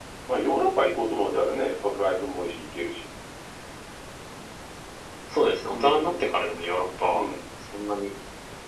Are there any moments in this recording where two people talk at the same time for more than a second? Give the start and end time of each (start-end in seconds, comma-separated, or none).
none